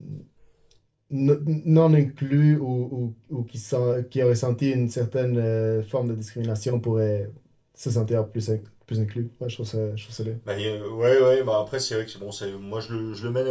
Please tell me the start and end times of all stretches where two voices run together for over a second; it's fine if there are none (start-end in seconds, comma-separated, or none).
none